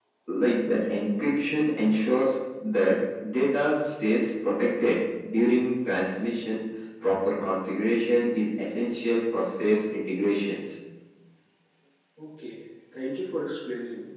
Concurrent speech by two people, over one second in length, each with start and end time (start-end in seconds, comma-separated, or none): none